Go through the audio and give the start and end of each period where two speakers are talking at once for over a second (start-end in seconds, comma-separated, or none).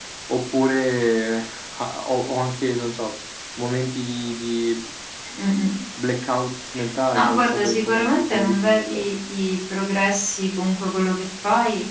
7.1-9.0